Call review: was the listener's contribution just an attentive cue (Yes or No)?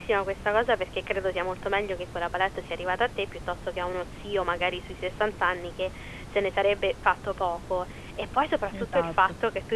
Yes